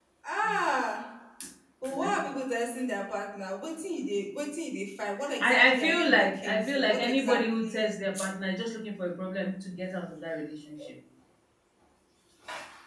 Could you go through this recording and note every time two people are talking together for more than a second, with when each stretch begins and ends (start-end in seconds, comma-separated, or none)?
5.4-7.9